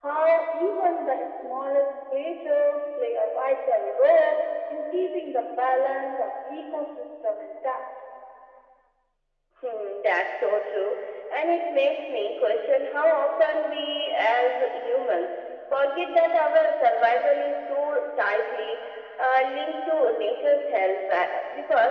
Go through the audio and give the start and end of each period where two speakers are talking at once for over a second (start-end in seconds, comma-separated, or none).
none